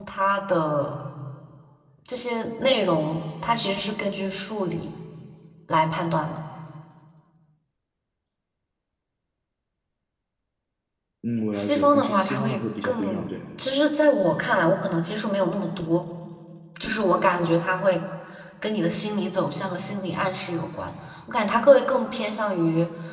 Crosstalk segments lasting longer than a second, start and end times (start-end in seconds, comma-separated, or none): 11.5-13.3